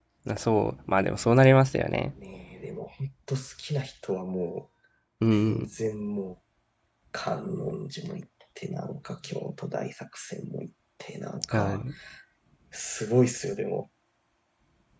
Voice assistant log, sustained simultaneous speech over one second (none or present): none